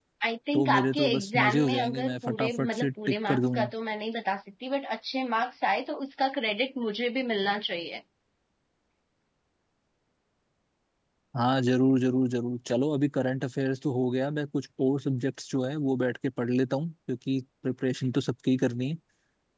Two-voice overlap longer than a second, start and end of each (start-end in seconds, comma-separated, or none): 0.5-3.7